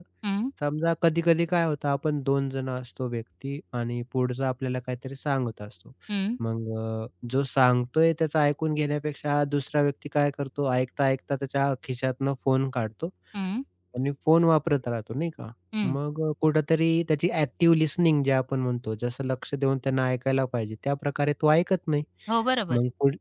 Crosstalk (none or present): none